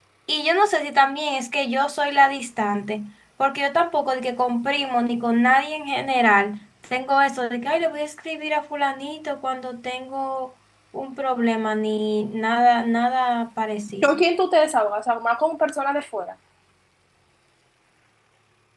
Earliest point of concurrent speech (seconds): none

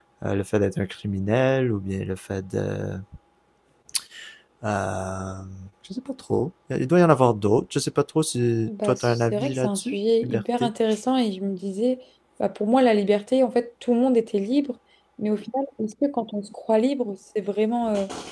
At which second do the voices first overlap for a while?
9 s

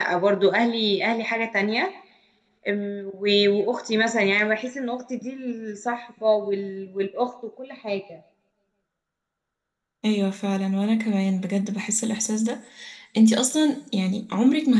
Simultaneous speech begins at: none

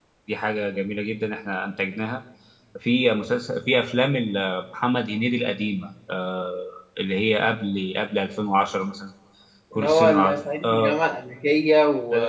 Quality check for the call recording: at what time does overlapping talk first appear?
10 s

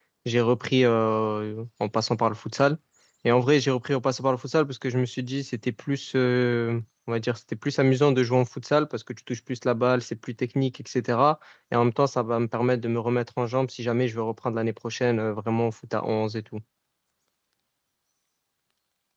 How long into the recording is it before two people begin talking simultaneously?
none

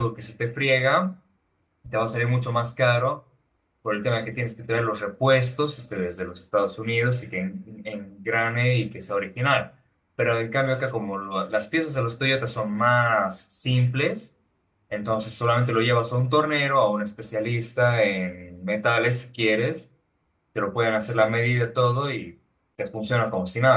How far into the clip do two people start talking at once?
none

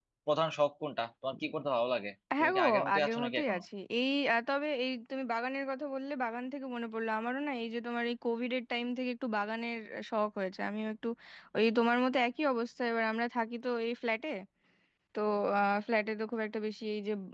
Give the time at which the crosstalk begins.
2 s

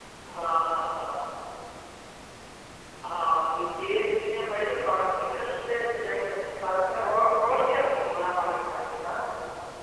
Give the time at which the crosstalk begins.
none

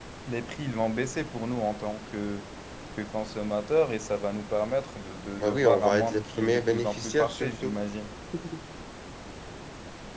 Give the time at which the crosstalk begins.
5 s

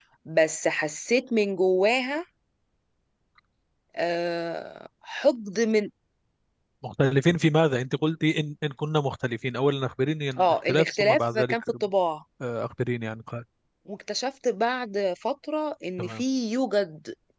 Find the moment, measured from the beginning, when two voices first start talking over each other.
10 s

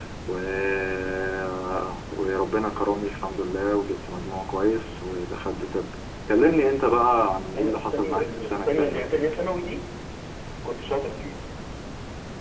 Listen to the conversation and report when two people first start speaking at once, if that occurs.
7 s

